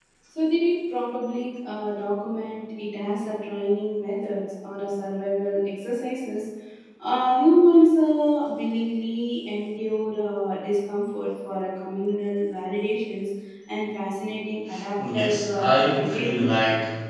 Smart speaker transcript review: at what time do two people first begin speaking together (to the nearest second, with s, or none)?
15 s